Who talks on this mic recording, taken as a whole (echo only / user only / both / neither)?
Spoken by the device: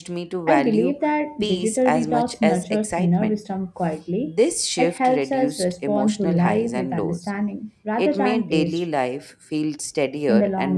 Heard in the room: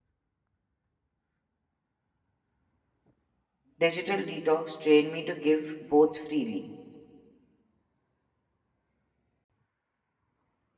user only